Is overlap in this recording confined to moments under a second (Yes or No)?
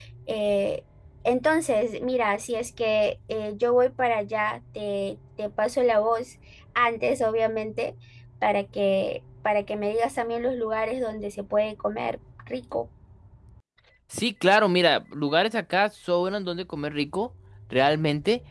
Yes